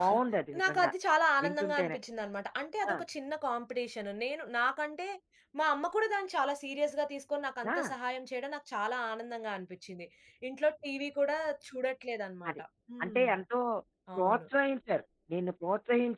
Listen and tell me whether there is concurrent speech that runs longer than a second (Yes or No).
No